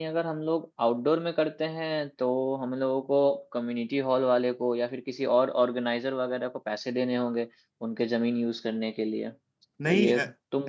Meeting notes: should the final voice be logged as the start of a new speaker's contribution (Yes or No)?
Yes